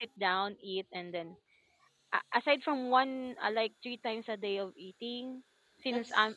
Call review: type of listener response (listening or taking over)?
listening